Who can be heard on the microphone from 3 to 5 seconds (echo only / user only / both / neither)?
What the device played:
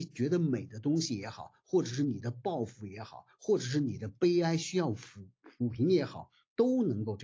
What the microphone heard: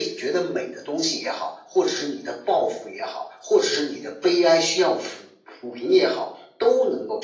echo only